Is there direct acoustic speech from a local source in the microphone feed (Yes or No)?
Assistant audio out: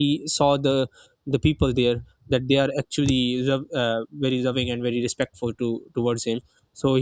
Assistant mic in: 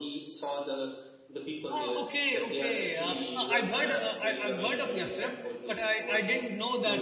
Yes